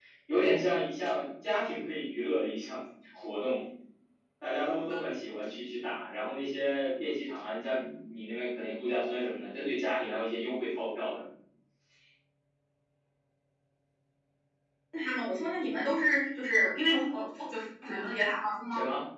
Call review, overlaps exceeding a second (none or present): none